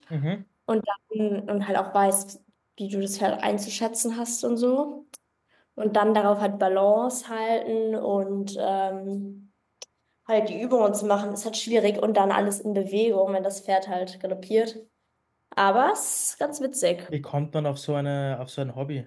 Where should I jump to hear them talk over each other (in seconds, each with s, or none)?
none